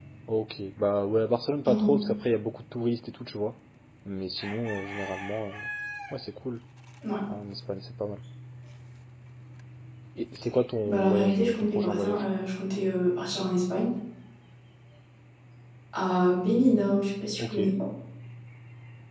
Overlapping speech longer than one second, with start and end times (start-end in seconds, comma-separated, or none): 10.8-12.2